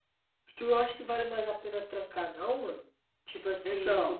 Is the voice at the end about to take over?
No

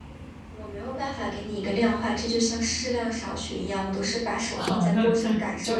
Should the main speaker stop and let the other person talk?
Yes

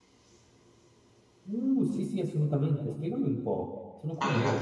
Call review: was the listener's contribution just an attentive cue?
No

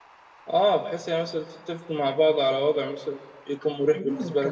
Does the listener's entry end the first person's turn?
Yes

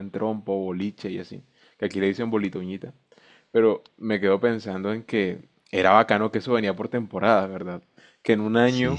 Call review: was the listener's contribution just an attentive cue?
Yes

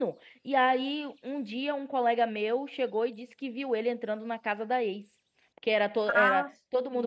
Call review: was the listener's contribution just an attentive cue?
Yes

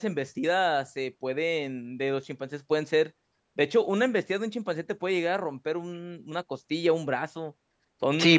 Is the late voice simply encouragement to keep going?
No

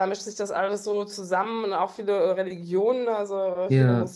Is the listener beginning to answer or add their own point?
No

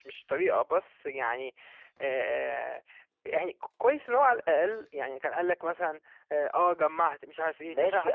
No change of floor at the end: No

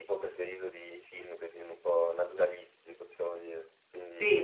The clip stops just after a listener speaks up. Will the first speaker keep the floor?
No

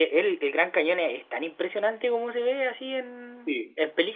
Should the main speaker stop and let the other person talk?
Yes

